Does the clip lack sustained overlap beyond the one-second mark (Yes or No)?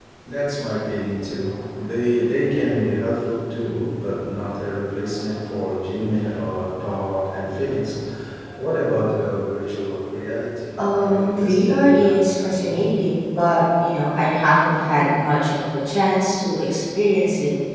No